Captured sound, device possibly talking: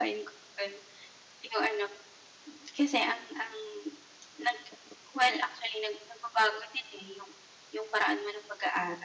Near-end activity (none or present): present